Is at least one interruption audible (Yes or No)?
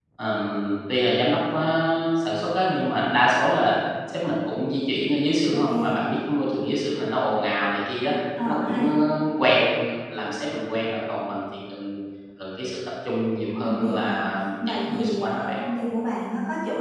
Yes